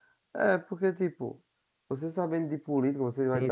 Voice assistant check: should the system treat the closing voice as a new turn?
Yes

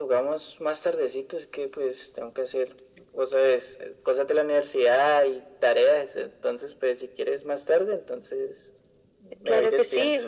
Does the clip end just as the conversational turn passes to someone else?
Yes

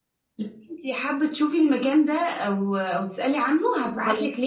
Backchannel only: Yes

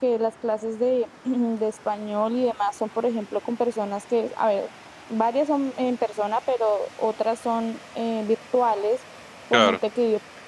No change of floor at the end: Yes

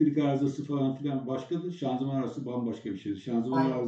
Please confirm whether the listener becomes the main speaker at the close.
No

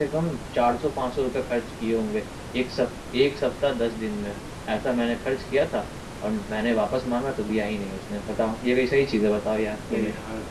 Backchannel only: No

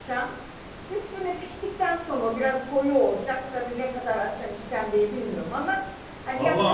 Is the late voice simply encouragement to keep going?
No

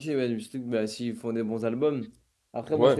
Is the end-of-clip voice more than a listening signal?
No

